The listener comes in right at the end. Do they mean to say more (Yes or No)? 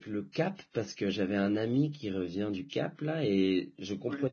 No